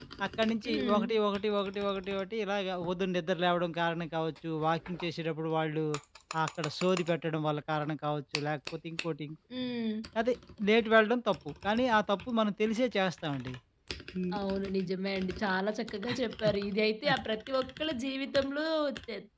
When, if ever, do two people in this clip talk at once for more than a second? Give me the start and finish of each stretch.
none

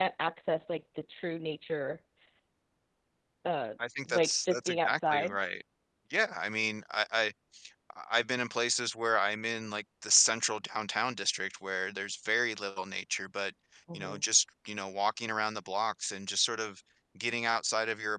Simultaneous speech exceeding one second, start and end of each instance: 4.1-5.3

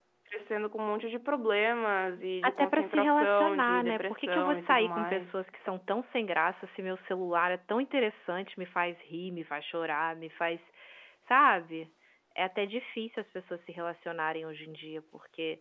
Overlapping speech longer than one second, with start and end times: 2.4-5.4

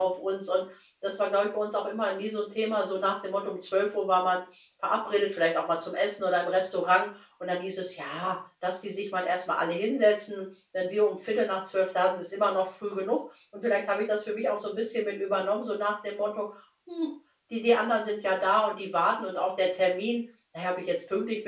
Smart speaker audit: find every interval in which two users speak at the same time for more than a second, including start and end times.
none

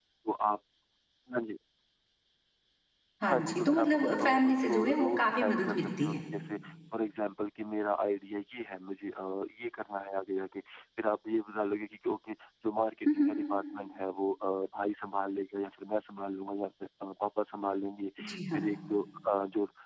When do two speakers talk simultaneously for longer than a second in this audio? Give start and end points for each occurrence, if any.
3.2-6.2

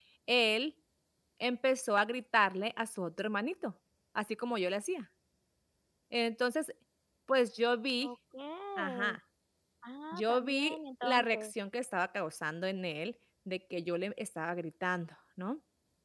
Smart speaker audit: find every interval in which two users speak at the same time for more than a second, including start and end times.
10.1-11.5

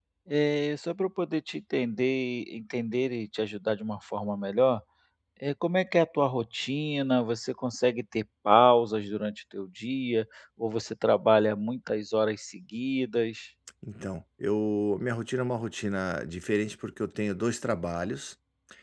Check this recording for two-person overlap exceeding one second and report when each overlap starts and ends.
none

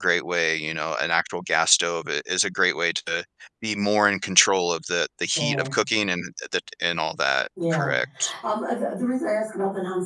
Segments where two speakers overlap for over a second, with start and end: none

